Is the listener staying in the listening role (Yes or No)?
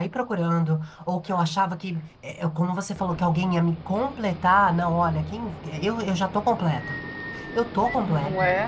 No